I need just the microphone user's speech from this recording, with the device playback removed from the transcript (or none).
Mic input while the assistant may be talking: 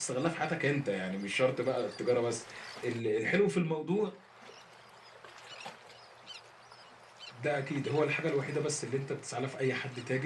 none